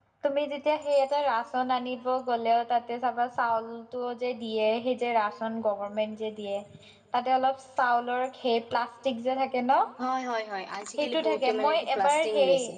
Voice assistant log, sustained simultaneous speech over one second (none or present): present